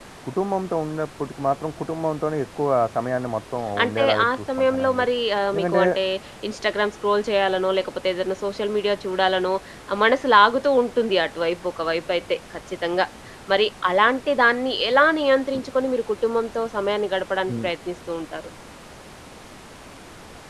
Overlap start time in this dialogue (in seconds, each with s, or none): 3.8 s